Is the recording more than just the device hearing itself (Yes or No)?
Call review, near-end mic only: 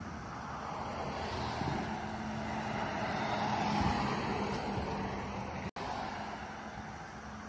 No